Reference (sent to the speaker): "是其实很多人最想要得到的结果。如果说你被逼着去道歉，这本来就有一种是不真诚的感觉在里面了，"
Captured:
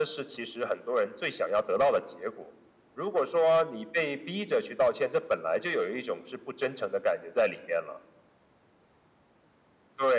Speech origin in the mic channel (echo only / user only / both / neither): echo only